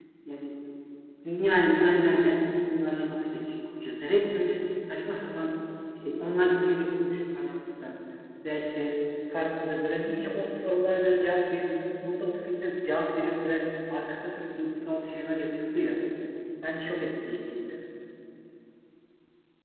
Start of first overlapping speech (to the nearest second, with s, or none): none